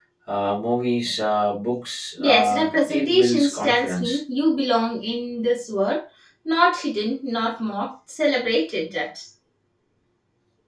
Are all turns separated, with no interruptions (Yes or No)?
No